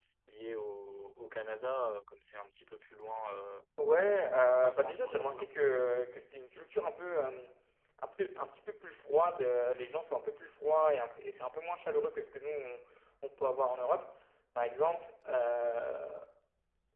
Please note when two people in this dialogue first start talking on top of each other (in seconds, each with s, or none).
4.0 s